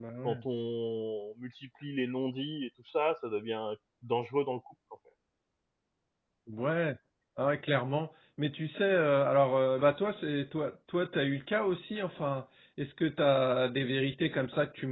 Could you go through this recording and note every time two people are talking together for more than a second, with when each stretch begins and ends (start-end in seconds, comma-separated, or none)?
none